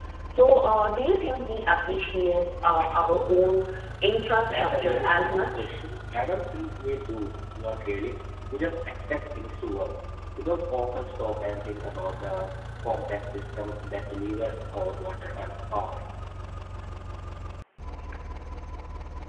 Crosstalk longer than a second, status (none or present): present